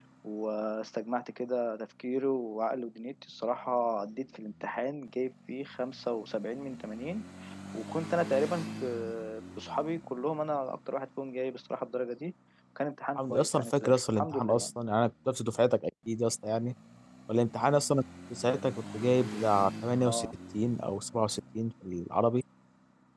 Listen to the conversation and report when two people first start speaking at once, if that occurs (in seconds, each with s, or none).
13.2 s